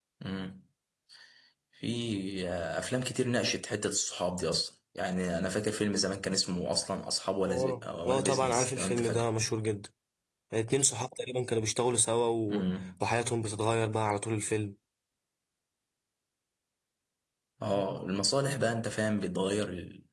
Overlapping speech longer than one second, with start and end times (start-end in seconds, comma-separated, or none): 7.5-9.3